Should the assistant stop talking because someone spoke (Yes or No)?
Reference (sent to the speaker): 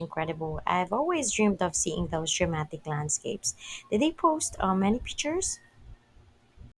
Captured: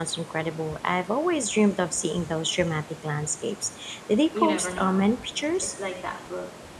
Yes